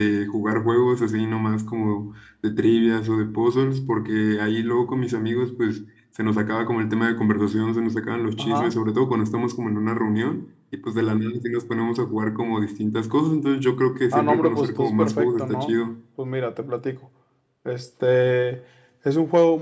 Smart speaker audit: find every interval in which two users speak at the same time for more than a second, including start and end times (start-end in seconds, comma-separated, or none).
14.1-15.7